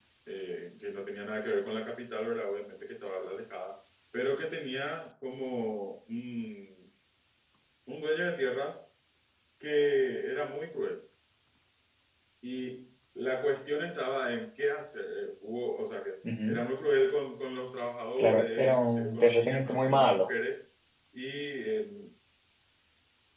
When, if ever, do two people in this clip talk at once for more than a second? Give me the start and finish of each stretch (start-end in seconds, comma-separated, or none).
18.2-20.3